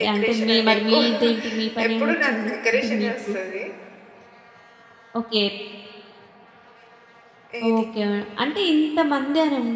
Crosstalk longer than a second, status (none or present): present